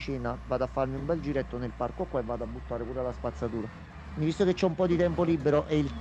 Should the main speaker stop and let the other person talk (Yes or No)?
No